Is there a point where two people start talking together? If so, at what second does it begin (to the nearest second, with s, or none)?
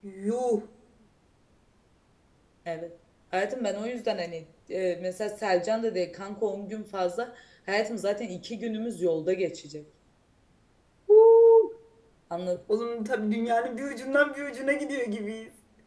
none